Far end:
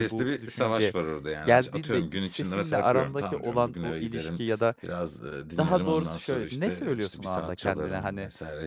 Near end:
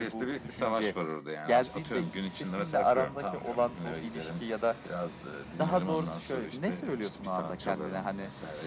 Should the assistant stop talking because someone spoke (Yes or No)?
No